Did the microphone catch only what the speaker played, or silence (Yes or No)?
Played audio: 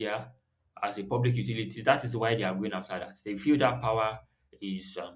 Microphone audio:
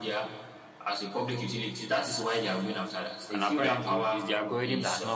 No